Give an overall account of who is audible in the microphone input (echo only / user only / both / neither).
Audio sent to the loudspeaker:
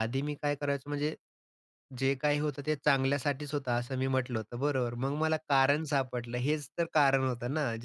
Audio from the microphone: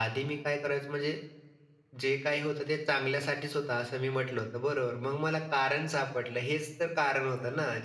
echo only